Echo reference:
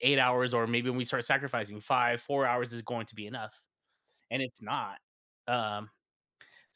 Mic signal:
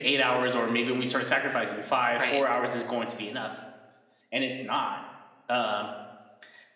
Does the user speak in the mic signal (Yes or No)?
Yes